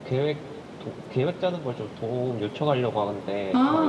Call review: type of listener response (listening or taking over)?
taking over